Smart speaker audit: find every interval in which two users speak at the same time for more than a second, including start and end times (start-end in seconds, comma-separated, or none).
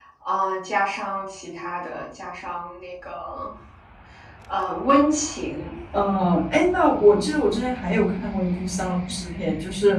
none